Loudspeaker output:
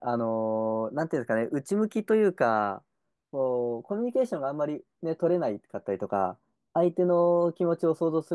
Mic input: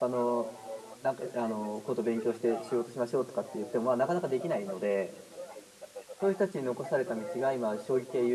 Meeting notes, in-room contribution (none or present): present